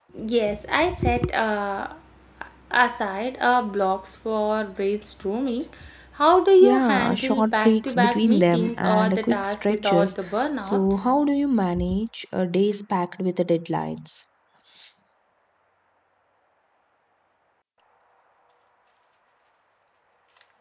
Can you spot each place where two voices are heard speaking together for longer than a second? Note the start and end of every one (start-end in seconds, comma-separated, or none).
6.6-10.1